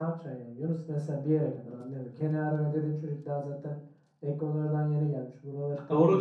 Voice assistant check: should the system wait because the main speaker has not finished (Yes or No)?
No